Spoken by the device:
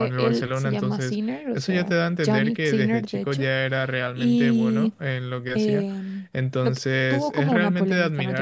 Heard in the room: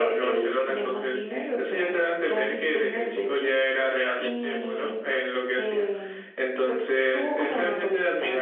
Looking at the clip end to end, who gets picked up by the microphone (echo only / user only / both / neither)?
echo only